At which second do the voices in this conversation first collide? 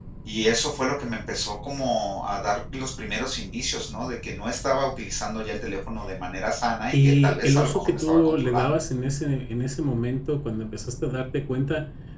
7 s

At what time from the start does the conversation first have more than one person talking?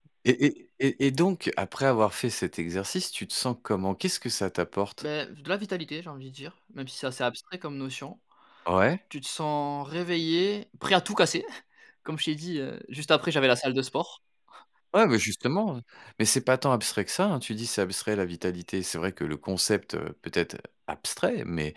none

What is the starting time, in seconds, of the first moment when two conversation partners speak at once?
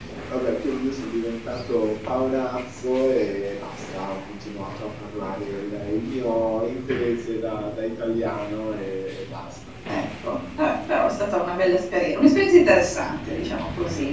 none

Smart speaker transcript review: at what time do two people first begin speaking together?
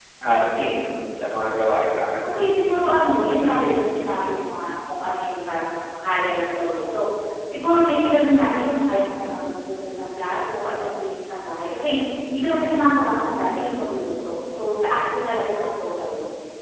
none

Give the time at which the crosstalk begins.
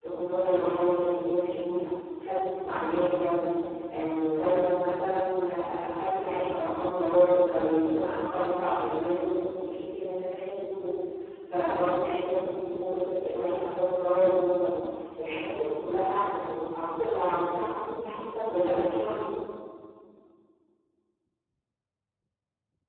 none

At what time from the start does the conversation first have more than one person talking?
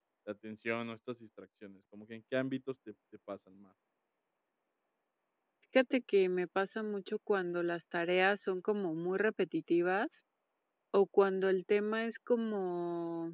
none

